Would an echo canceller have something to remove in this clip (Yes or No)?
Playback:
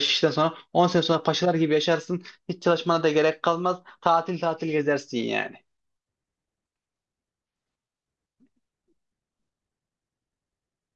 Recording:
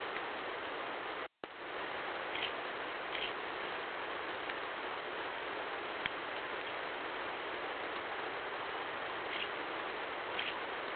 No